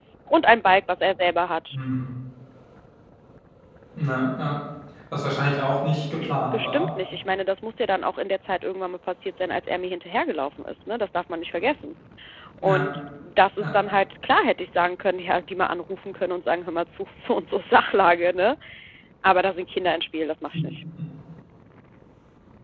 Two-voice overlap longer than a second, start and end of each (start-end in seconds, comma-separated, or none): none